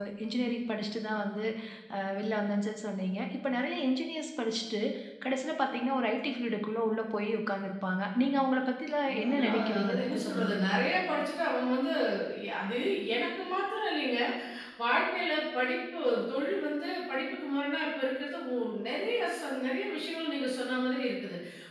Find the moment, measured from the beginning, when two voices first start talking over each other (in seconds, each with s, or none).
9.1 s